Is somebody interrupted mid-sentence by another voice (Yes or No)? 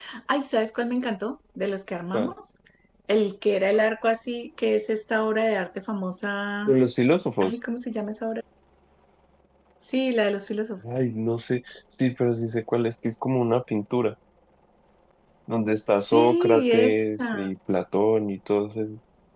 Yes